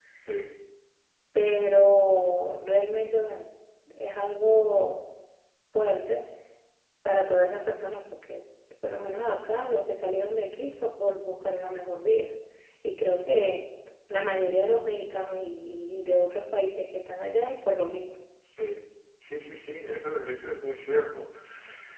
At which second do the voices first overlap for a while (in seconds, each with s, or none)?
none